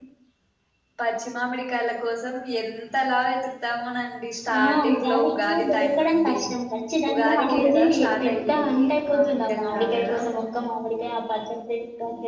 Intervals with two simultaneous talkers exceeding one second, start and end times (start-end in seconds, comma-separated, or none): 4.6-6.4, 7.1-10.2